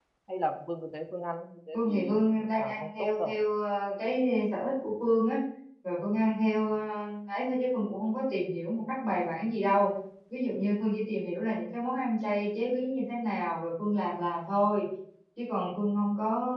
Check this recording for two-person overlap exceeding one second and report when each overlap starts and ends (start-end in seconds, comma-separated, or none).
1.7-3.4